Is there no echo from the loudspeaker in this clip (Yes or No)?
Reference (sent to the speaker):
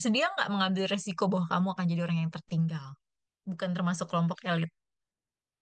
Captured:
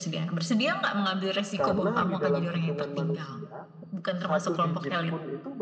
No